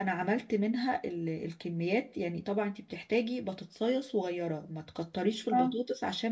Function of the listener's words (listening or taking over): listening